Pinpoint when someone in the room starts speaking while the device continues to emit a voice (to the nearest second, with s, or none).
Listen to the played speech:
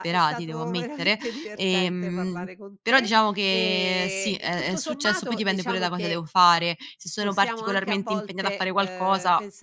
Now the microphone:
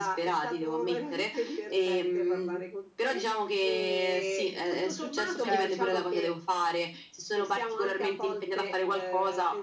5 s